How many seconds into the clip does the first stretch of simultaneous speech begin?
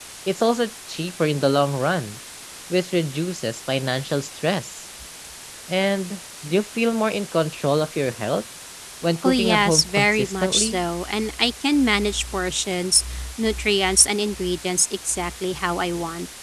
9.2 s

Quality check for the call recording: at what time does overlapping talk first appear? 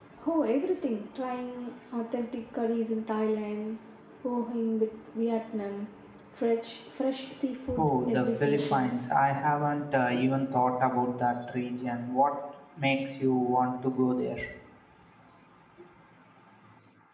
7.7 s

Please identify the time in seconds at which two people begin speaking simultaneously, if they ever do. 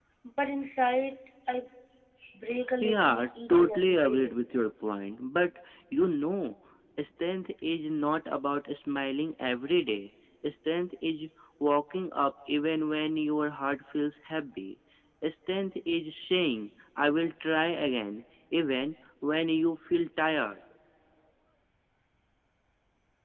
2.8 s

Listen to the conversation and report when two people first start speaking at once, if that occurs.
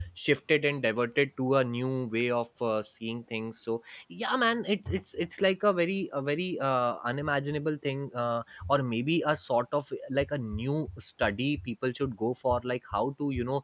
none

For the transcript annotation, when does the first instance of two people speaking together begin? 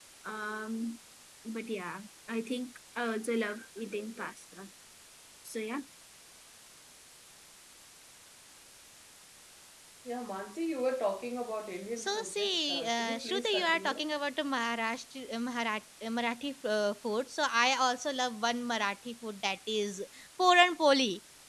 12.0 s

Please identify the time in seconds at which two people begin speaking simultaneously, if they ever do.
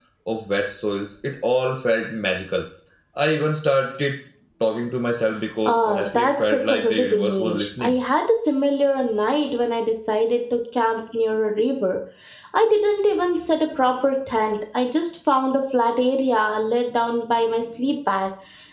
5.7 s

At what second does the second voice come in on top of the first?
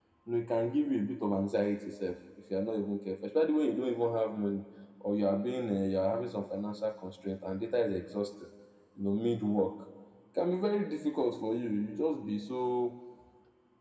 none

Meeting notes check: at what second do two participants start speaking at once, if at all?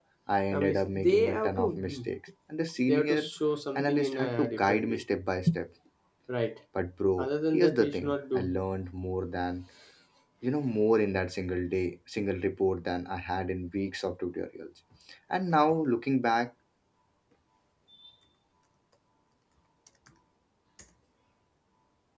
0.5 s

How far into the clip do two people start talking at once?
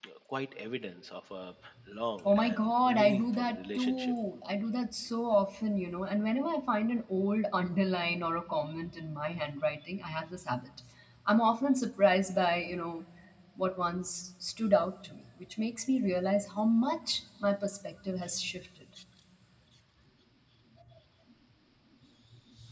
2.2 s

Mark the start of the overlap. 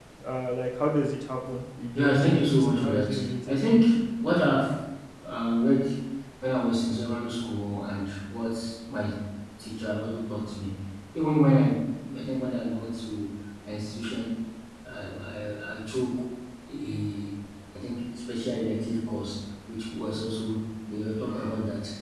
2.0 s

